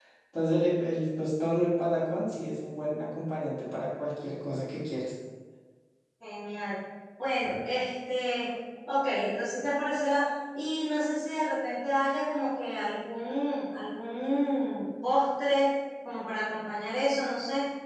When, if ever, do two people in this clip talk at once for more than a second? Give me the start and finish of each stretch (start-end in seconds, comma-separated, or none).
none